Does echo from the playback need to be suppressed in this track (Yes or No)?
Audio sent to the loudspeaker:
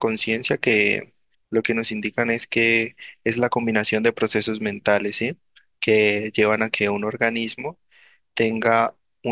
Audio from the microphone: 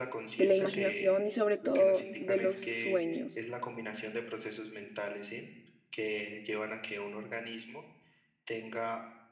Yes